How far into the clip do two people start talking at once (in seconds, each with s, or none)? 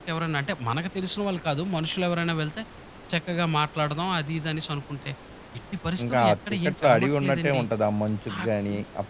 6.0 s